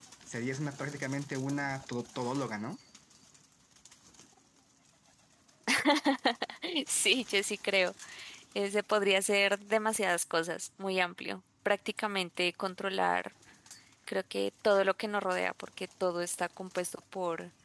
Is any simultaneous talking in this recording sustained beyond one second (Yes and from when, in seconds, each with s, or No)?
No